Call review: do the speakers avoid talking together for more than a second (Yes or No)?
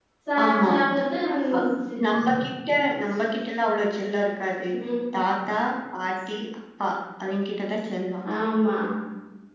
Yes